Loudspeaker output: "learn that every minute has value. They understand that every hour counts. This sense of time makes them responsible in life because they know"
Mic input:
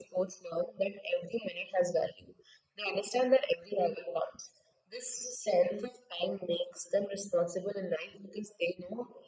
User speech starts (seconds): none

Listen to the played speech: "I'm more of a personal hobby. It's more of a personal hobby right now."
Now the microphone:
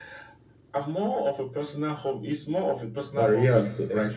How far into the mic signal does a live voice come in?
3.2 s

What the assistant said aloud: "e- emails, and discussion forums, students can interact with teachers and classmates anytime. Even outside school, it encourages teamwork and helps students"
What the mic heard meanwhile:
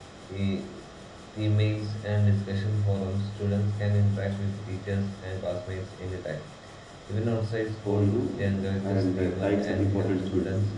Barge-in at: 7.8 s

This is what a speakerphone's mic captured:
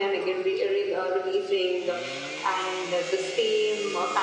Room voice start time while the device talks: none

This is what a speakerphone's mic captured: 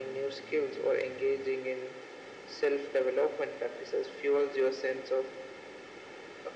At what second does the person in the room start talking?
none

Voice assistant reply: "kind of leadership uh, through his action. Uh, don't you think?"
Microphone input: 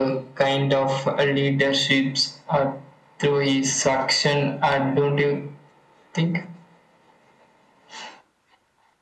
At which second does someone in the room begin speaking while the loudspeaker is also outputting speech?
none

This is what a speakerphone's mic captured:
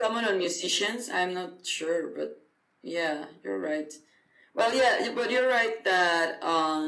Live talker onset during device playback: none

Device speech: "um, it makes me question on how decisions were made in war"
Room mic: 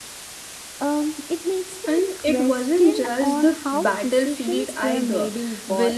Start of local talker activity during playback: 1.8 s

